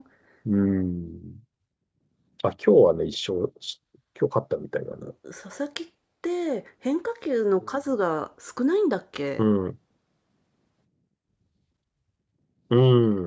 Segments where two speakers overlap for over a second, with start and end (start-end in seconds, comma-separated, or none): none